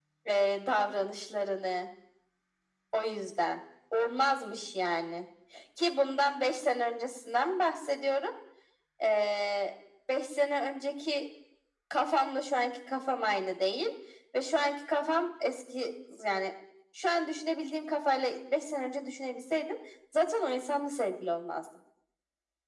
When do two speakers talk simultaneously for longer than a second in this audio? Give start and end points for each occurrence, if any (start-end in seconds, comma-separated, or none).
none